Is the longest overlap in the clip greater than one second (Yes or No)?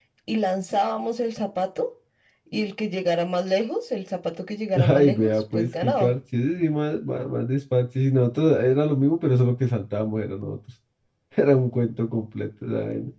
Yes